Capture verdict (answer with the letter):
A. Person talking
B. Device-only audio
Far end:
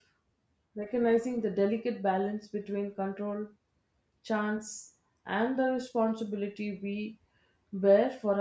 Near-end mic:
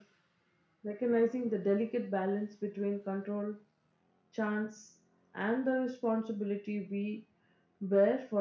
B